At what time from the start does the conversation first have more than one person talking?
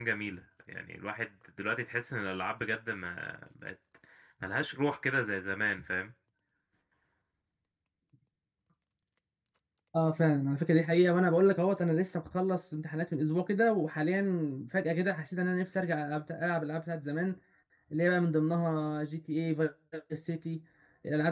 none

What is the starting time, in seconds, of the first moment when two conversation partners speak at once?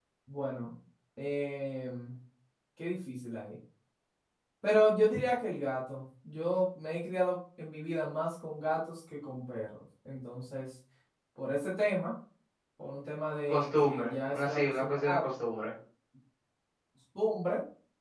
13.5 s

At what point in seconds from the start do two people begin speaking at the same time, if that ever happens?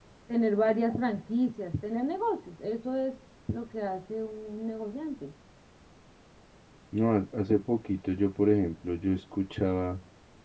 none

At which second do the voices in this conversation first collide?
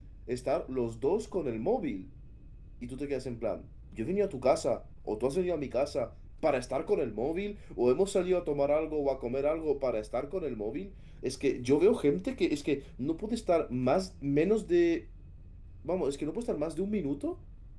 none

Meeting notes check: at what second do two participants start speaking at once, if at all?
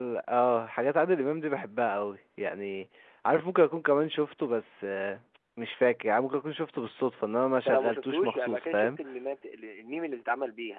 7.5 s

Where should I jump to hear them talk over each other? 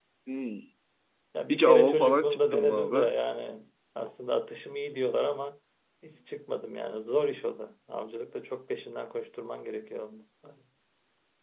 1.5 s

